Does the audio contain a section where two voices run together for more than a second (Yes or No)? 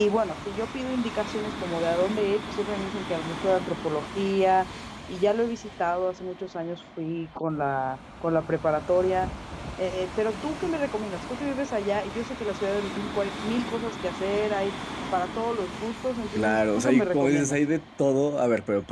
Yes